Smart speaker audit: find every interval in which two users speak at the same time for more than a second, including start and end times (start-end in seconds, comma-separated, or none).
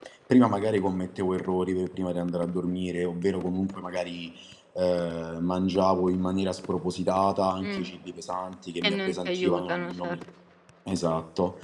8.8-10.2